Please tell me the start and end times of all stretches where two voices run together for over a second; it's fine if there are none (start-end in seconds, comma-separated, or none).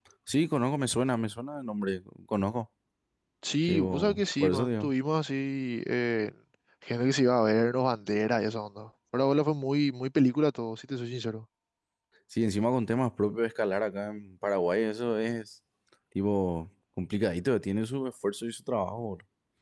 3.6-4.9